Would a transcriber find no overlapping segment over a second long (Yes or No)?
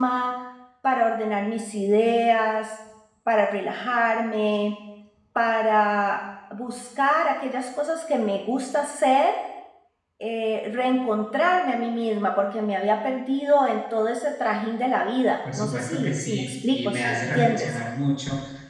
No